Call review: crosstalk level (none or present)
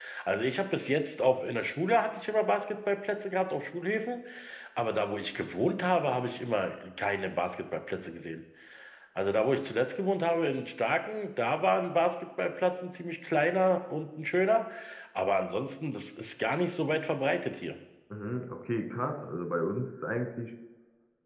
none